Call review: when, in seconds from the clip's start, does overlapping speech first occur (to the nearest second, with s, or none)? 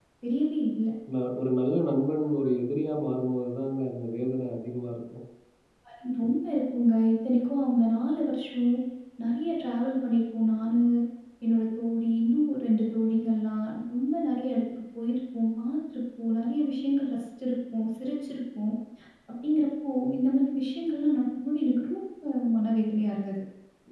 none